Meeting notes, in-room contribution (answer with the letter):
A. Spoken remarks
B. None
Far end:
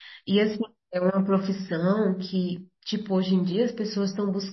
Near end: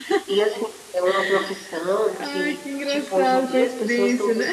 A